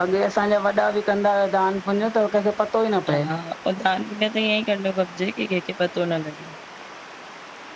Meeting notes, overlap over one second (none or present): none